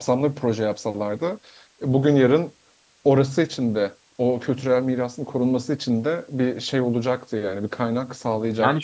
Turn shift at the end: Yes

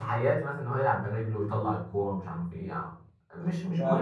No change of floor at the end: No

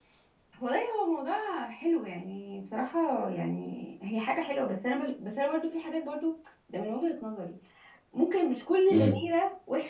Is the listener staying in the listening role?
Yes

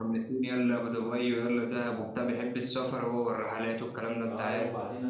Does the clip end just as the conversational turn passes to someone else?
Yes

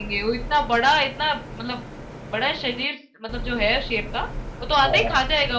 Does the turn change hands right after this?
No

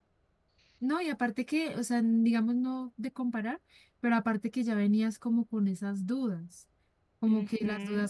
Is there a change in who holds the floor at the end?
No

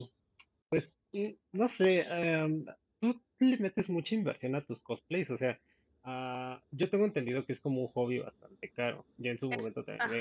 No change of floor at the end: Yes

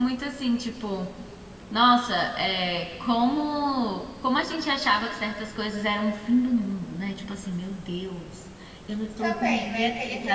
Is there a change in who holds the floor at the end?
Yes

